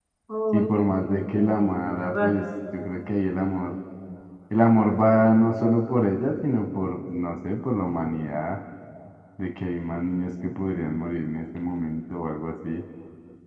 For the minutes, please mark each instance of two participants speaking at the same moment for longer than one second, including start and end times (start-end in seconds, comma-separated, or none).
0.5-2.4